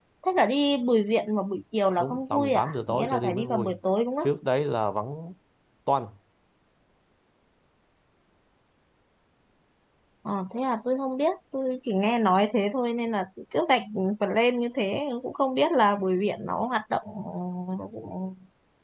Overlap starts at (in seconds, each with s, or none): 2.0 s